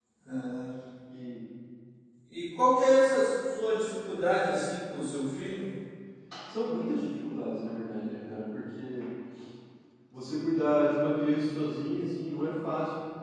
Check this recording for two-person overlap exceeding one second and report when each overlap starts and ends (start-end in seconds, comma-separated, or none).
none